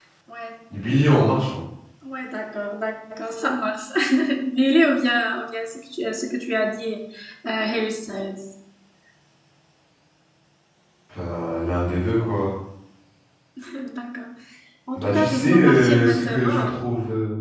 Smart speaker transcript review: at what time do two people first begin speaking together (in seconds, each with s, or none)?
14.9 s